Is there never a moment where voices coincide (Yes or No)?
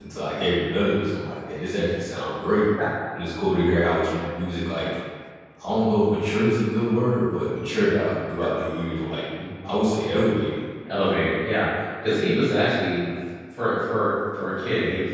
Yes